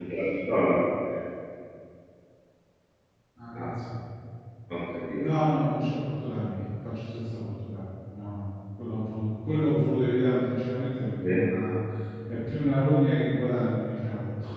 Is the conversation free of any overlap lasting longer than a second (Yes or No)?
Yes